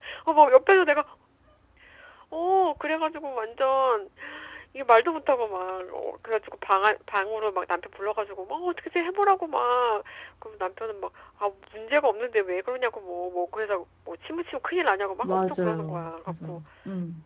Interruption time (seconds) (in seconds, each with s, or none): 15.2 s